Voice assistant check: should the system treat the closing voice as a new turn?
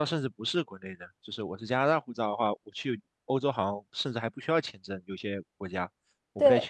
No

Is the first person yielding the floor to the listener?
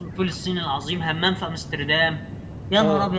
Yes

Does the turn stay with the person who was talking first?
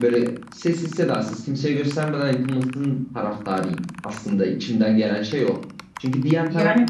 Yes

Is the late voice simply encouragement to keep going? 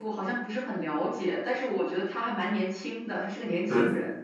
No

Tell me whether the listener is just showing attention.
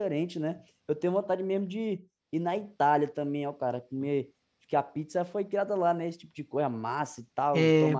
No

